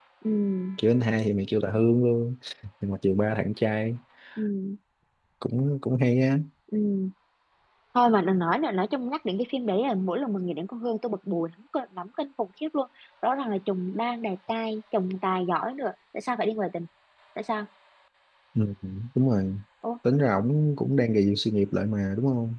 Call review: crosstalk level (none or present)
none